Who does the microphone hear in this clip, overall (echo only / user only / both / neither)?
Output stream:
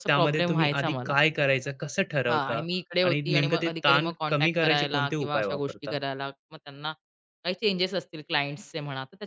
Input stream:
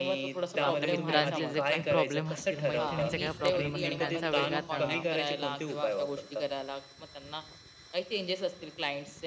both